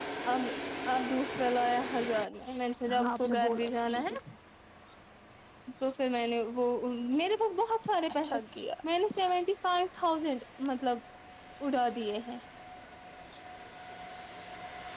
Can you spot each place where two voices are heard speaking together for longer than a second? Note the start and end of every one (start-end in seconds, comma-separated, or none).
2.9-4.1